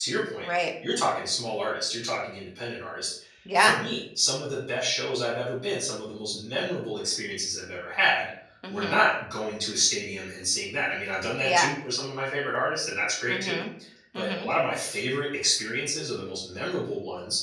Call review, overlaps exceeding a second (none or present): none